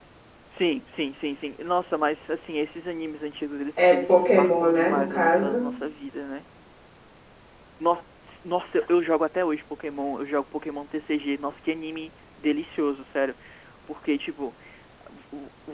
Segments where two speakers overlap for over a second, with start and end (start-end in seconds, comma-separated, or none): 3.8-5.7